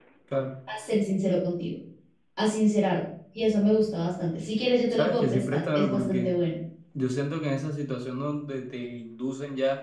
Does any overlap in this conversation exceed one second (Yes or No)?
Yes